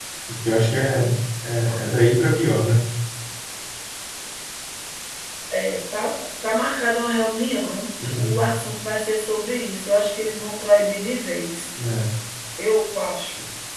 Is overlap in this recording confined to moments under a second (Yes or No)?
Yes